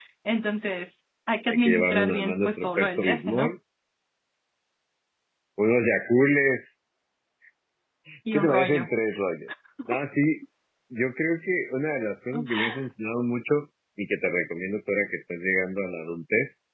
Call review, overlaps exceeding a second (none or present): present